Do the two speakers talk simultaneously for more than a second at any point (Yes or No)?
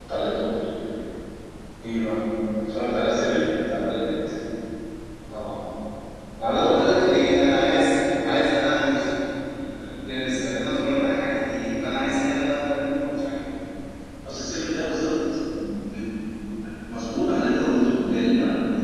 No